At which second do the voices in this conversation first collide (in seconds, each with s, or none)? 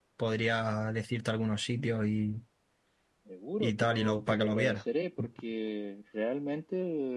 3.6 s